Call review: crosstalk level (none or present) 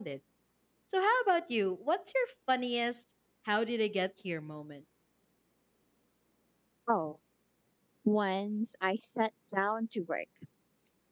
none